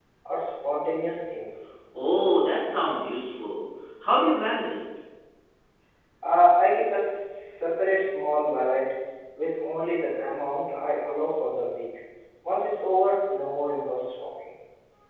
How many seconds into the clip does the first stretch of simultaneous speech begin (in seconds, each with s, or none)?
none